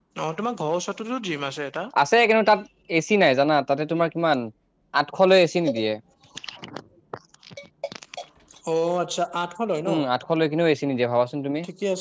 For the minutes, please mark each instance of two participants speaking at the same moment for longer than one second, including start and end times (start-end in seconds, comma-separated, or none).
none